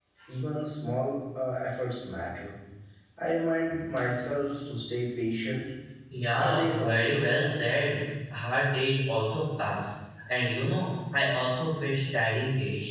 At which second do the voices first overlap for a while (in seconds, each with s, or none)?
6.3 s